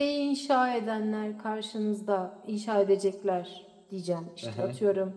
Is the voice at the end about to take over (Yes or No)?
Yes